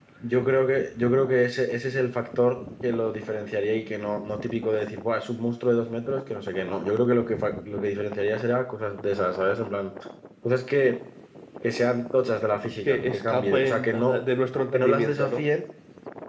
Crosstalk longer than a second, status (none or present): present